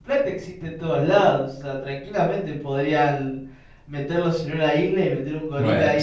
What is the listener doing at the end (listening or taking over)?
taking over